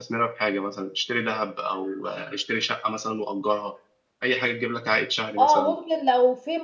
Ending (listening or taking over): taking over